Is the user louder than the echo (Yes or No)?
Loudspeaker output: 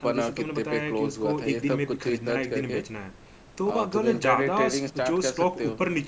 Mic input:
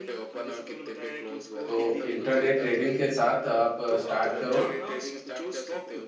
Yes